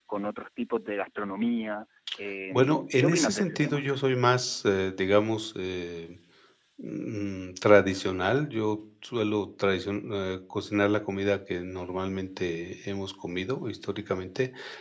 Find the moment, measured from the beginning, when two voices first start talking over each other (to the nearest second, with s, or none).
3 s